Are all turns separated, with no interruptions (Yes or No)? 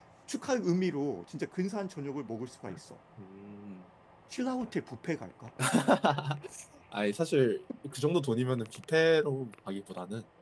Yes